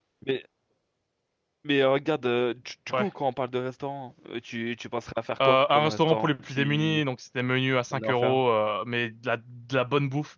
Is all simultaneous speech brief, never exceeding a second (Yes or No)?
No